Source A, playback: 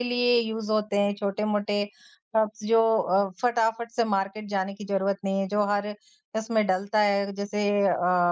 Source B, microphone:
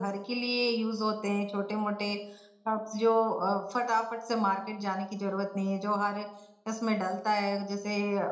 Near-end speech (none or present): none